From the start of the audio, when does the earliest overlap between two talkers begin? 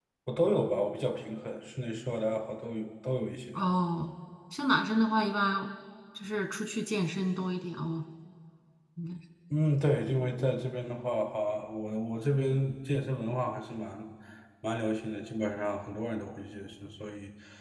none

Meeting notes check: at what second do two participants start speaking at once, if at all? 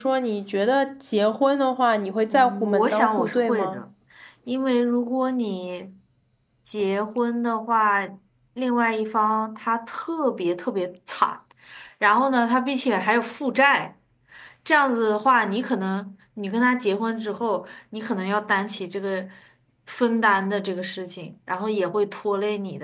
2.3 s

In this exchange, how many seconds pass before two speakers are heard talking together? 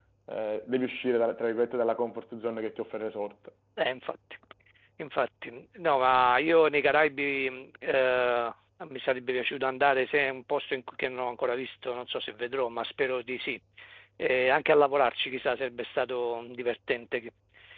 none

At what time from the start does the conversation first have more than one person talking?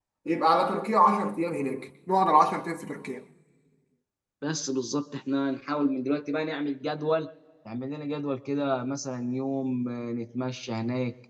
none

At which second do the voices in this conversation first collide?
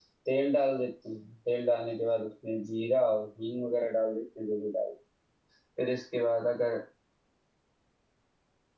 none

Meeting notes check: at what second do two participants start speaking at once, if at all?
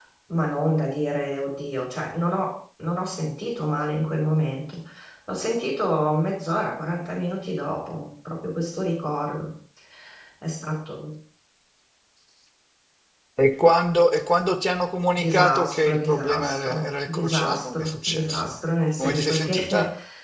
15.2 s

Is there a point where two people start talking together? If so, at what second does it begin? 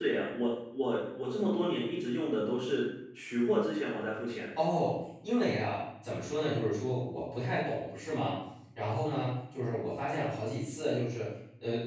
none

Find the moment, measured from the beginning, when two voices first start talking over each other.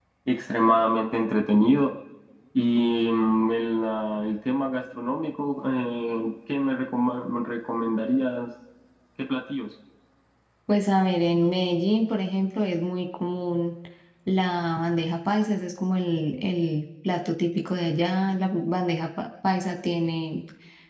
none

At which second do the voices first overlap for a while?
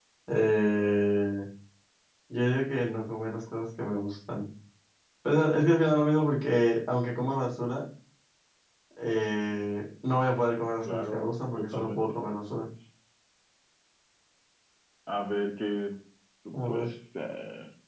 10.8 s

